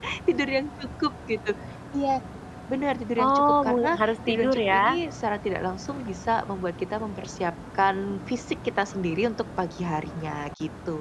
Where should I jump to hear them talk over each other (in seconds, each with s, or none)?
3.2 s